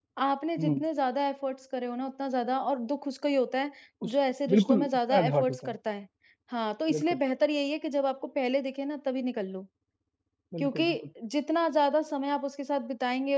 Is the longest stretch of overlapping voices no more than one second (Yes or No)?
No